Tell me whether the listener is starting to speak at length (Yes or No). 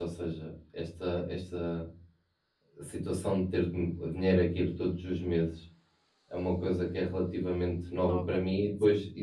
No